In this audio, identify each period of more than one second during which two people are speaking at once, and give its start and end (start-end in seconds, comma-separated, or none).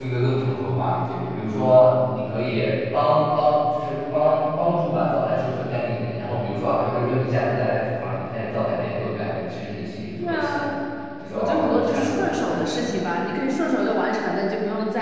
11.3-12.8